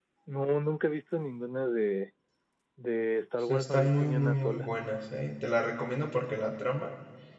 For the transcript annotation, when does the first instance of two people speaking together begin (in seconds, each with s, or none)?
3.4 s